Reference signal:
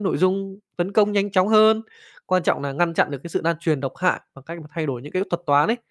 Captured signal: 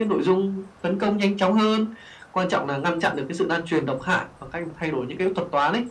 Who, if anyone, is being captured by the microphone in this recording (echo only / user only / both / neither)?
echo only